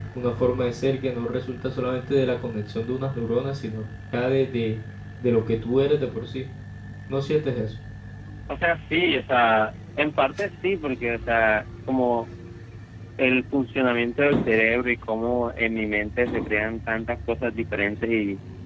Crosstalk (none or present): none